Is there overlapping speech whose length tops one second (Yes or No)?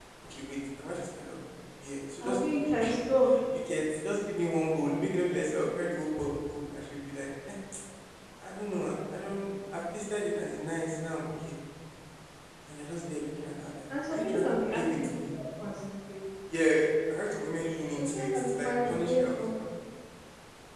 Yes